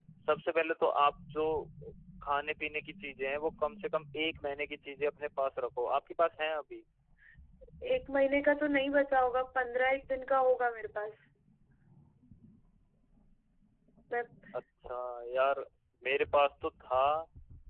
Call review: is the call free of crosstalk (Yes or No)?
Yes